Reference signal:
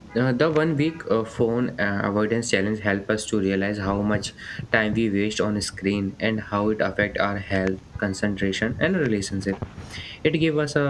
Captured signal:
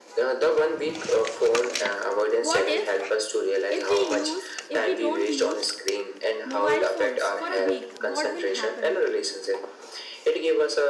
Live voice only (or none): what if if we use if we don't use mobile phones for a week, what will happen?